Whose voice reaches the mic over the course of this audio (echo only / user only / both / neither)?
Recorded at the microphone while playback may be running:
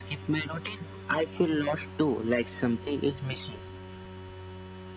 echo only